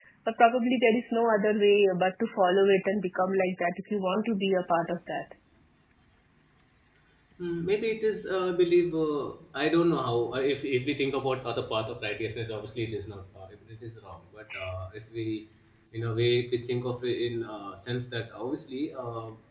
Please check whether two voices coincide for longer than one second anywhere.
No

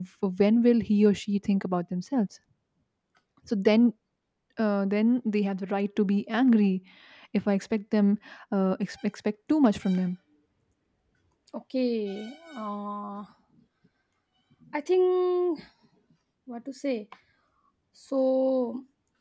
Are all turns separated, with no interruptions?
Yes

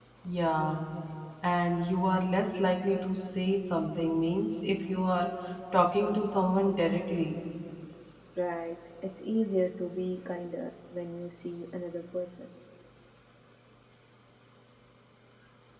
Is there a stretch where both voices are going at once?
No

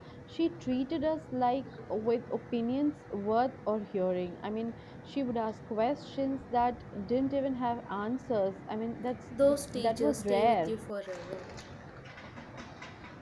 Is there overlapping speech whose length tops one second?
Yes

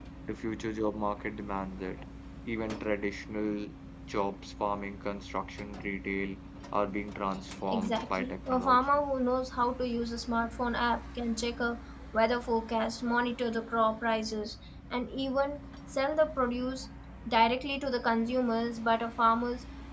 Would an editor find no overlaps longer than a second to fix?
No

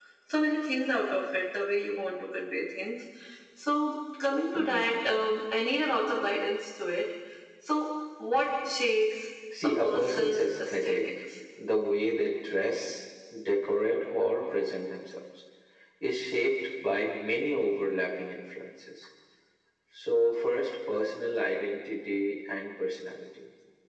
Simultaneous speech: Yes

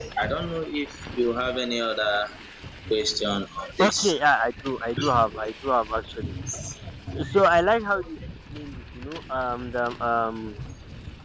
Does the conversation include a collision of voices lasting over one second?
No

